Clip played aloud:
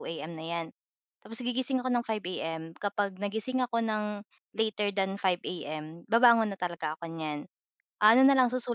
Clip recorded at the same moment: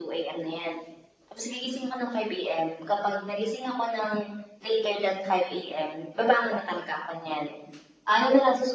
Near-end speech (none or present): none